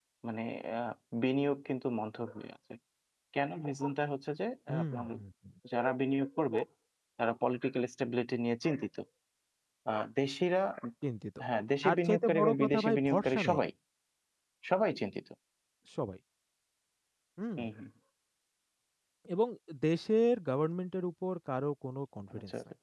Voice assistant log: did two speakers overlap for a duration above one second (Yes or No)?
Yes